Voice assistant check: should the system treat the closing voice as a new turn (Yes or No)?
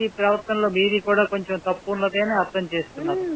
Yes